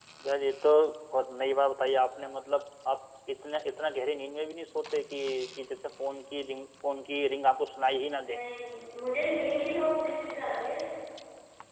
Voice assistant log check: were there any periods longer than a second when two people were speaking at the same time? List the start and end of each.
none

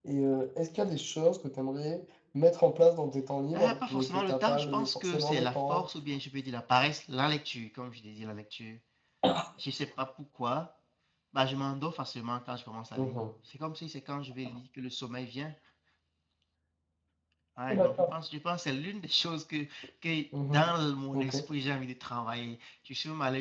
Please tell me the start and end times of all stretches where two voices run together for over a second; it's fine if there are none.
3.5-5.8

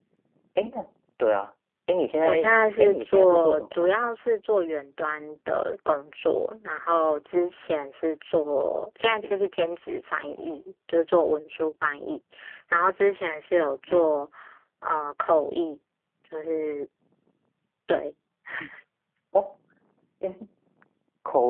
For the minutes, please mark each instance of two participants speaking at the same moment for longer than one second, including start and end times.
2.2-3.9

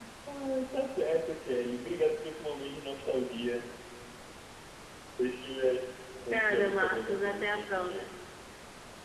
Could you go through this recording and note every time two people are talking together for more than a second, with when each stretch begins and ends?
6.3-8.0

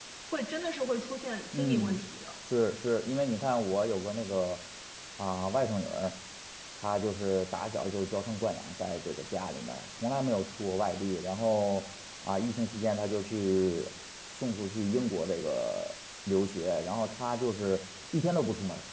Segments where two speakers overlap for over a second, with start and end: none

